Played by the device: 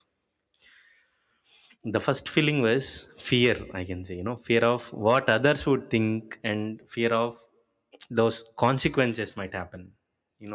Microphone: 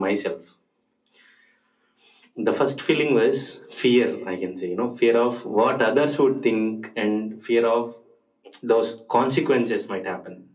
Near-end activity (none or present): none